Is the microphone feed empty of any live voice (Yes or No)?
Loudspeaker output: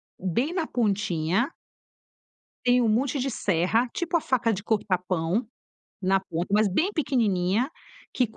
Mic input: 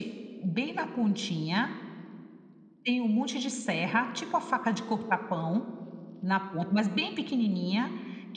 Yes